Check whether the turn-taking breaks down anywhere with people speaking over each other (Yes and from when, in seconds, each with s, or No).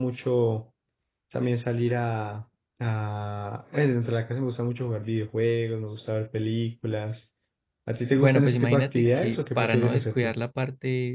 Yes, from 8.1 s